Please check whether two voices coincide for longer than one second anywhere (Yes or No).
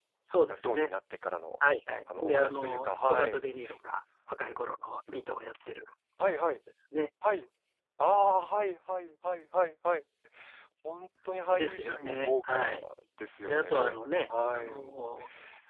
Yes